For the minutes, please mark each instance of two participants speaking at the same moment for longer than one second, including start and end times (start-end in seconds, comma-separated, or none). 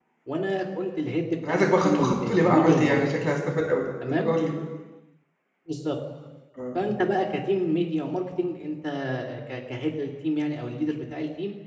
1.5-3.0